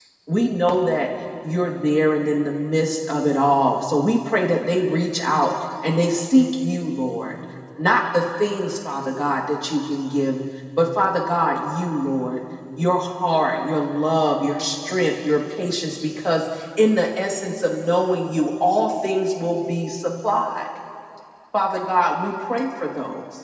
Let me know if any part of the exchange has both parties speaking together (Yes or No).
No